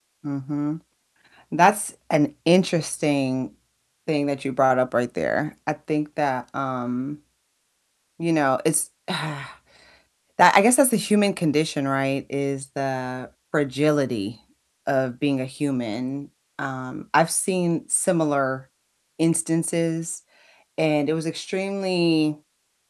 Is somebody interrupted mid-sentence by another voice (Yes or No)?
No